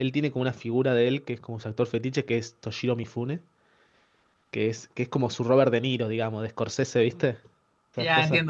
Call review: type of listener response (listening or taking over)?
taking over